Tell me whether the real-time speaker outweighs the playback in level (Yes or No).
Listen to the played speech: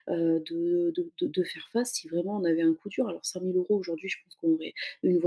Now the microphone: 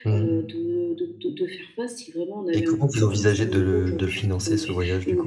Yes